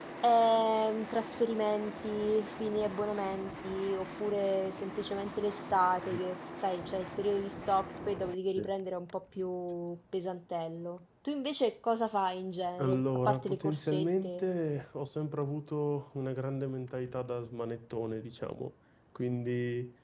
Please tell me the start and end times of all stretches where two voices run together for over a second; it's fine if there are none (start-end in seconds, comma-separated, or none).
12.8-14.5